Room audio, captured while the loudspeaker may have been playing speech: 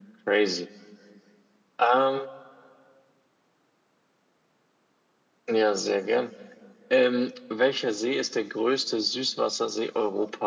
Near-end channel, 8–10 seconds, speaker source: echo only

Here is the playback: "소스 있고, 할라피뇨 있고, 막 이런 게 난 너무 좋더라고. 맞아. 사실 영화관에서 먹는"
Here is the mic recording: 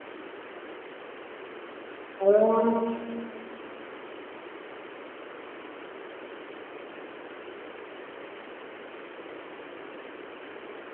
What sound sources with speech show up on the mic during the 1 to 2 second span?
neither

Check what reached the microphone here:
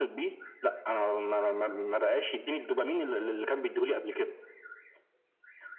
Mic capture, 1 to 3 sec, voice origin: echo only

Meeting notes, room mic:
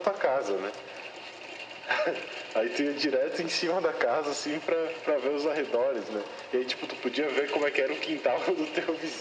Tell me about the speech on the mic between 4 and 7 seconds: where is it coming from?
echo only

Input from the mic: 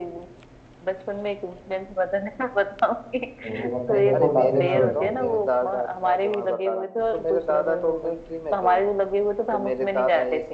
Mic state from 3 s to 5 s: both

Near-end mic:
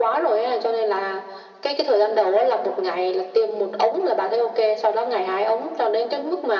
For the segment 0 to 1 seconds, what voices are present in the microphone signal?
echo only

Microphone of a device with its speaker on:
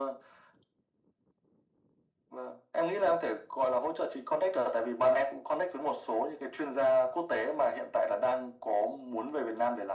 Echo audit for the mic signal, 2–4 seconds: echo only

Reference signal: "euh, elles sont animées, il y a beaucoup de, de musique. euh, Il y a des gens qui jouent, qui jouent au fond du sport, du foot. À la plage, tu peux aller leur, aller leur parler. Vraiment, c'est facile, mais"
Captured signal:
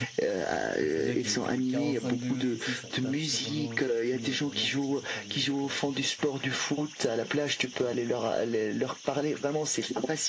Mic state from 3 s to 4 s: both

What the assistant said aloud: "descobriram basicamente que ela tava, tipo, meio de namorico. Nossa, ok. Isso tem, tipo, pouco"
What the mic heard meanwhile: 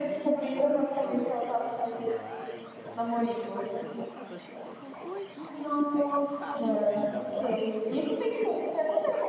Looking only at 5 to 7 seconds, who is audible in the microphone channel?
both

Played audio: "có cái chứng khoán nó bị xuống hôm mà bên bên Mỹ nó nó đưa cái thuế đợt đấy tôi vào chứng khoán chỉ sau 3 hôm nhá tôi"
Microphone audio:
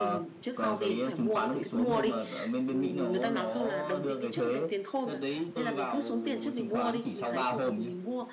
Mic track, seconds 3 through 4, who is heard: both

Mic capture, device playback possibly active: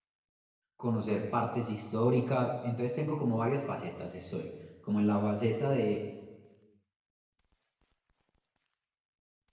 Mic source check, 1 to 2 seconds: user only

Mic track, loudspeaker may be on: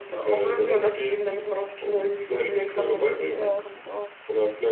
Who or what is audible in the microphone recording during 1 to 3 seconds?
echo only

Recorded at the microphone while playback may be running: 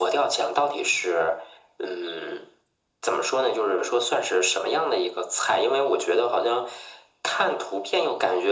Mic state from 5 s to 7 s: echo only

